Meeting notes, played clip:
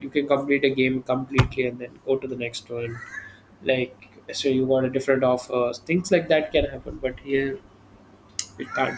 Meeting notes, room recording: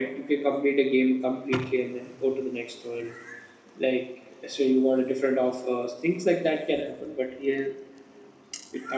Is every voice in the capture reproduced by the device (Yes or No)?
Yes